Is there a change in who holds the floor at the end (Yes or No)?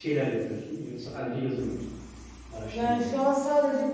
Yes